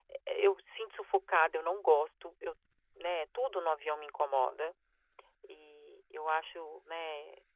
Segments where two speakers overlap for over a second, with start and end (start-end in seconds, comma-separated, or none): none